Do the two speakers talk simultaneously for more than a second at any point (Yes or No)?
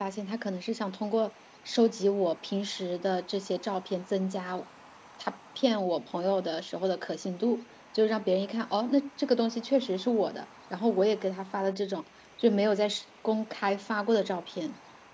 No